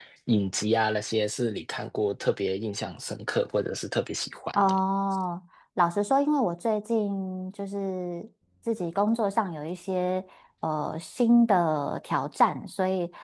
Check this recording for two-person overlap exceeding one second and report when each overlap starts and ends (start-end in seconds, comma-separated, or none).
none